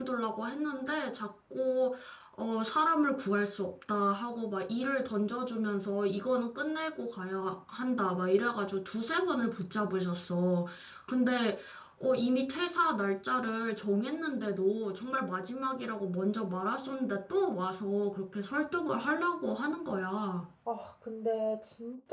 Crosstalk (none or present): none